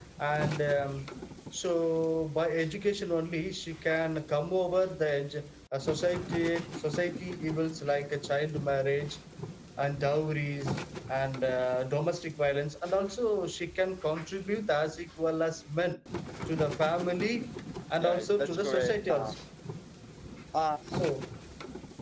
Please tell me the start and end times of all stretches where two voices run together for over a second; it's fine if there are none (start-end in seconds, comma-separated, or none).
18.0-19.3